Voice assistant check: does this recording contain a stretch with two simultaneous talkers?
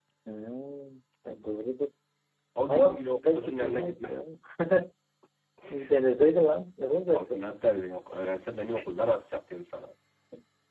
Yes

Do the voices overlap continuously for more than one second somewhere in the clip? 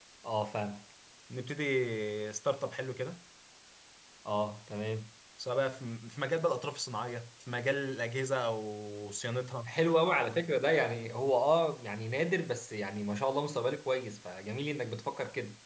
No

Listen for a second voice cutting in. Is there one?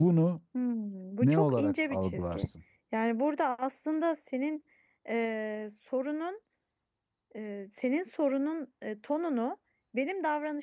Yes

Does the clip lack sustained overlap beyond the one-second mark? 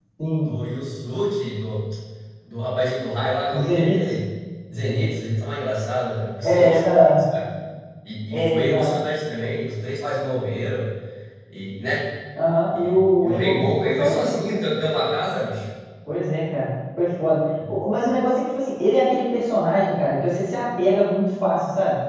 No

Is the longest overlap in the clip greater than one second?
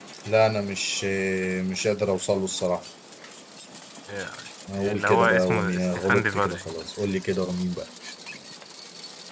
Yes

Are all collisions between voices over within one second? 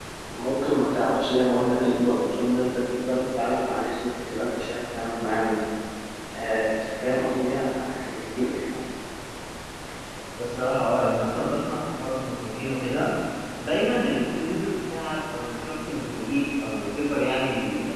Yes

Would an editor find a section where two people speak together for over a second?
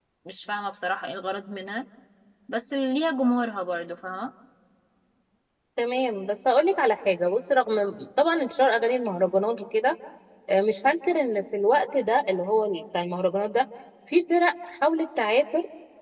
No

